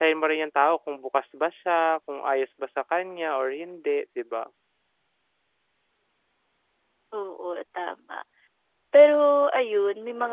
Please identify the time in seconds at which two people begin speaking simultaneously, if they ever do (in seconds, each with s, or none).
none